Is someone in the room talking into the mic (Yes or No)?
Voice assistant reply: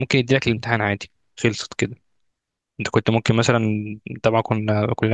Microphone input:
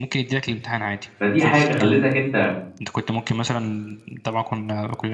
Yes